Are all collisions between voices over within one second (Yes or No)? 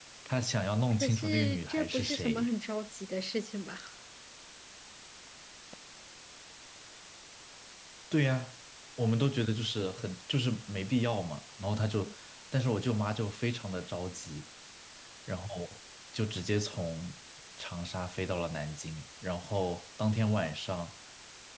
No